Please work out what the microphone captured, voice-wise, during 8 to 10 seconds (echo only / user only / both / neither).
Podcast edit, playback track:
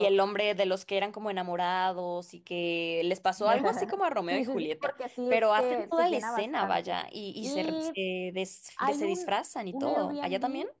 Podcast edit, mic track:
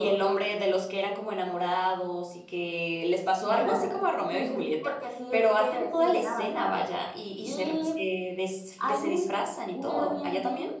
echo only